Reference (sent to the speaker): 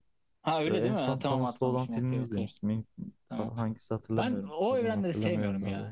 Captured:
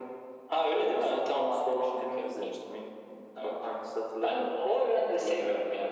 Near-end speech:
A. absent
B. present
A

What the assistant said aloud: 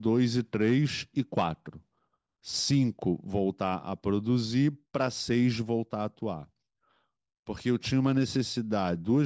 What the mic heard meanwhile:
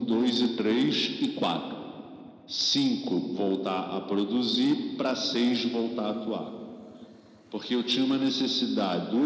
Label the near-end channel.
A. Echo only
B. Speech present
A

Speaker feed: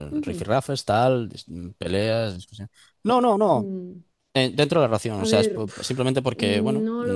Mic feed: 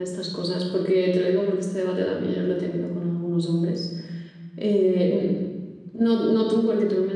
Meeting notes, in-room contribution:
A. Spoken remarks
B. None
A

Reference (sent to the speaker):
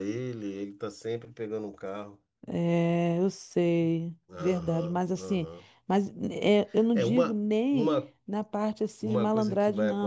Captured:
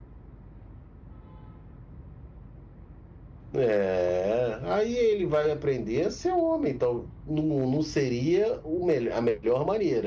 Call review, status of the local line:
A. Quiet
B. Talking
B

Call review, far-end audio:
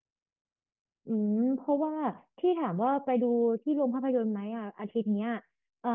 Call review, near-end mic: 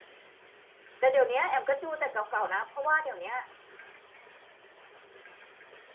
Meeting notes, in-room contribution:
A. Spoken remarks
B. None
A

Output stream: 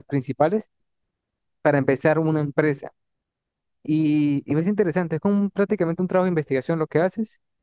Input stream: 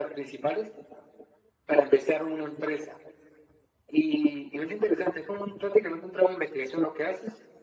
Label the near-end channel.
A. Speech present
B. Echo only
B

